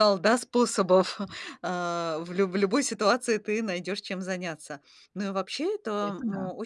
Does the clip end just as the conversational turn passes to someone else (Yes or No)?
No